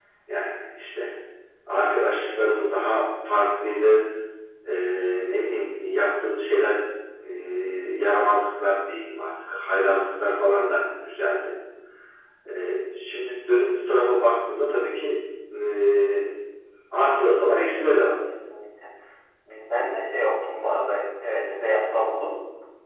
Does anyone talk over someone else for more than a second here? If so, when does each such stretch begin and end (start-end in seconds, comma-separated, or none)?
none